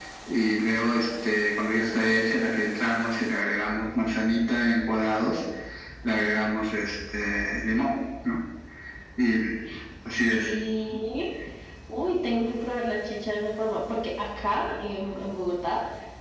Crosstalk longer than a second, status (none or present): none